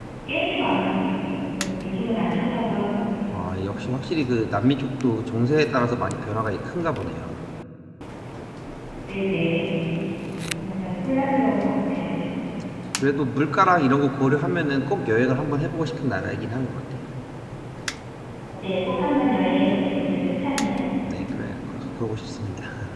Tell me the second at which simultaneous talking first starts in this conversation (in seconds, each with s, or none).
none